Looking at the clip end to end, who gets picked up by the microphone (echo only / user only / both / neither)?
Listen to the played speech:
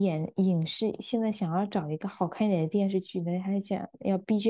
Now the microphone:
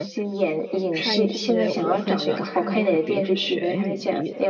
both